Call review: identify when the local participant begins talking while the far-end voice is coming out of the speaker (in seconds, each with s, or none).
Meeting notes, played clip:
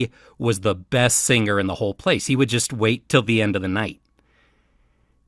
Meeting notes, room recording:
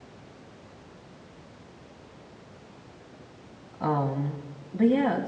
3.8 s